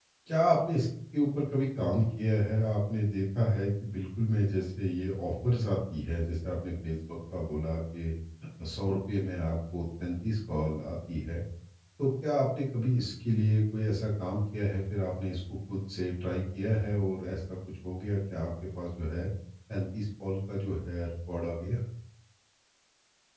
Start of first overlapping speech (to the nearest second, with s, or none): none